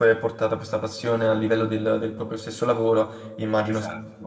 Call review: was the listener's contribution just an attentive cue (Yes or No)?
No